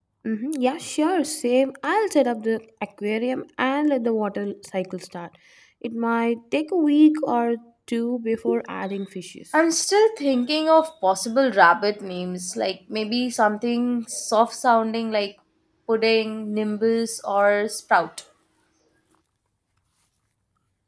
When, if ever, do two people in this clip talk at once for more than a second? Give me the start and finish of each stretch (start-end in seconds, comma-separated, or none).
none